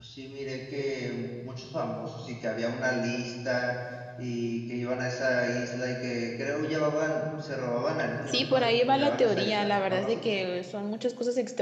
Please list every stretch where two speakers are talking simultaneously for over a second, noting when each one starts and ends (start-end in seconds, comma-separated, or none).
8.3-10.2